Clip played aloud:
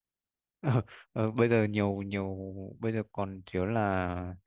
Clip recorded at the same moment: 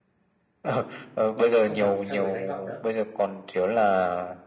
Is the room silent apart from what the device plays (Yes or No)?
No